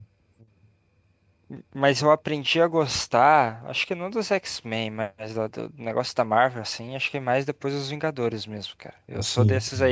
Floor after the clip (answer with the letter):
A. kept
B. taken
A